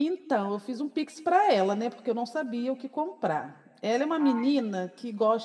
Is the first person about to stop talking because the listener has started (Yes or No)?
No